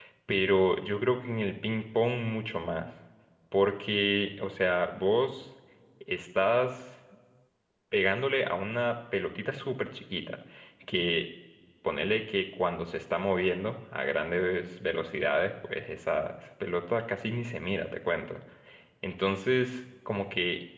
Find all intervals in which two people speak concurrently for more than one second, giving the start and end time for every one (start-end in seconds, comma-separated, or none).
none